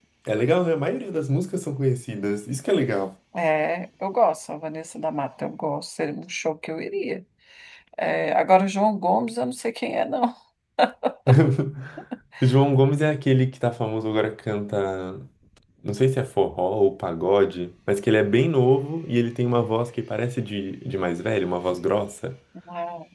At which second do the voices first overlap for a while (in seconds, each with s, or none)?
none